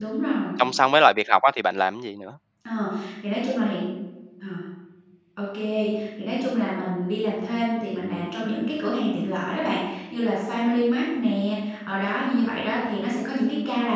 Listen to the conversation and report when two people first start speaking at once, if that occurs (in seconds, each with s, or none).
none